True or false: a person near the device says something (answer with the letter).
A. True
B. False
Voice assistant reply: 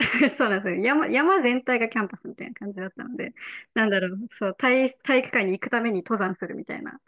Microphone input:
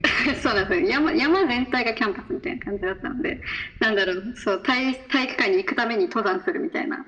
B